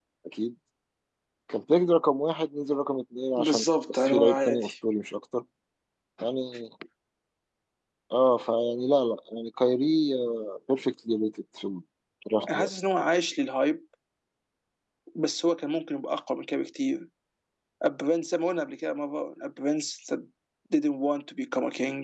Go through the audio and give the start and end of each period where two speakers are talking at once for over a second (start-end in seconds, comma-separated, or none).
3.4-4.7